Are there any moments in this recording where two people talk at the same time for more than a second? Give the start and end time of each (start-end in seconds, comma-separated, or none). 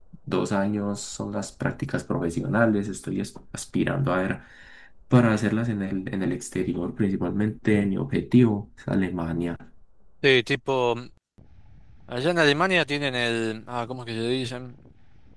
none